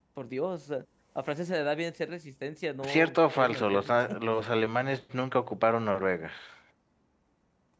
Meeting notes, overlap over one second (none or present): present